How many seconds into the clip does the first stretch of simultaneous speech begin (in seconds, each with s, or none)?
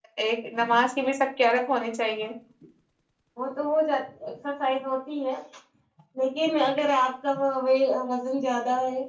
none